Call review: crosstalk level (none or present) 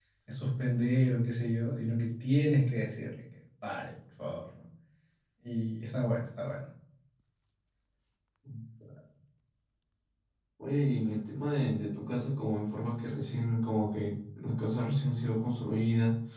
none